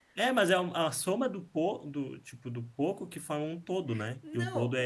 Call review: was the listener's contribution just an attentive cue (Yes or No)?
No